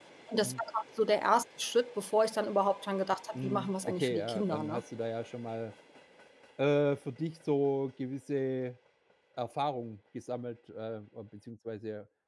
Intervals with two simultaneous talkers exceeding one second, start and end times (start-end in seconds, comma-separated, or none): 3.4-4.8